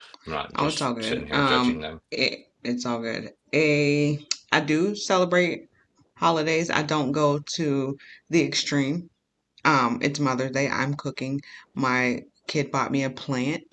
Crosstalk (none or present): present